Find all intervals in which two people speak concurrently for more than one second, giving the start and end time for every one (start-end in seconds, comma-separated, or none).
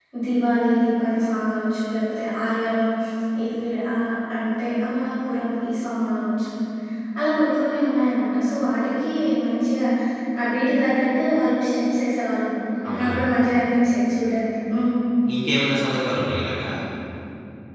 none